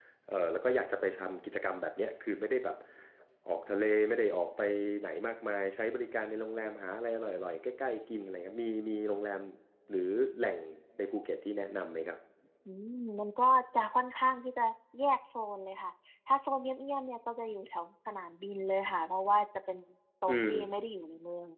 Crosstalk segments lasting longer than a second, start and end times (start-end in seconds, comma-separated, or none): none